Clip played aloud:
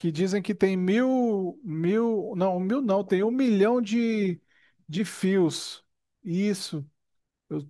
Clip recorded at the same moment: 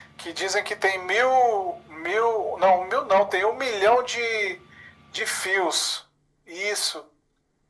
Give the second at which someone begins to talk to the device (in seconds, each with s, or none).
none